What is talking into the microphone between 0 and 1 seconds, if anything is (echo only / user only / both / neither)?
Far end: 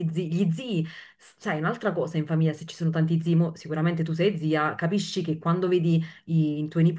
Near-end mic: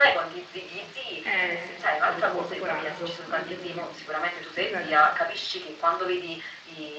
echo only